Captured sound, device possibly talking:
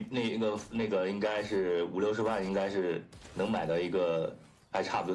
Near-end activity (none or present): none